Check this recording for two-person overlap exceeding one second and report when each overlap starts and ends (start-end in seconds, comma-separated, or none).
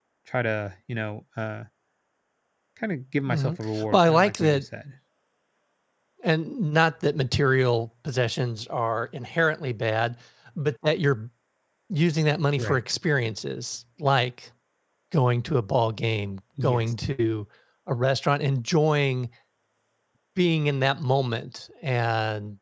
3.3-4.6